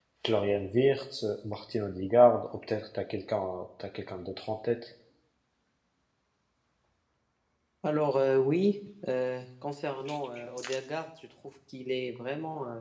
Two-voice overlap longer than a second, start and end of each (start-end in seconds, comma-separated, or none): none